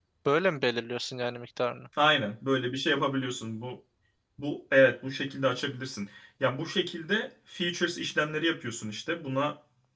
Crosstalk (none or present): none